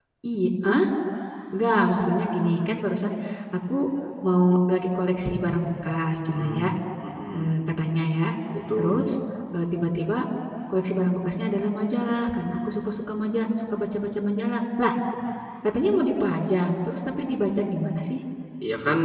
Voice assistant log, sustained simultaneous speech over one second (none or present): none